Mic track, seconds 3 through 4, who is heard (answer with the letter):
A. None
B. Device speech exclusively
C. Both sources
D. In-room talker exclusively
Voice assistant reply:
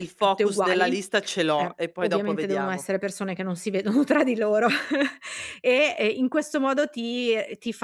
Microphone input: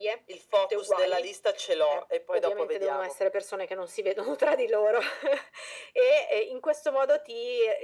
B